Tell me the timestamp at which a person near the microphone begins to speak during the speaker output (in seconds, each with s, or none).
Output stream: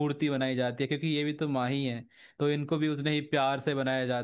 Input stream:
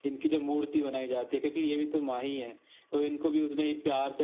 none